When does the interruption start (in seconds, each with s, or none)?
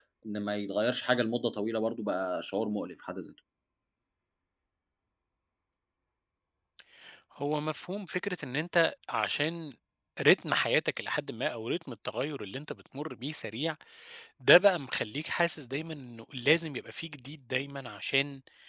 none